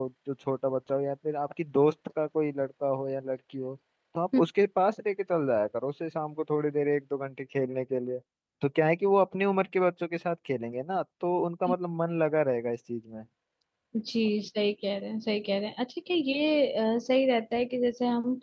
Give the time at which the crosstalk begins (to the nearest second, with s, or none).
none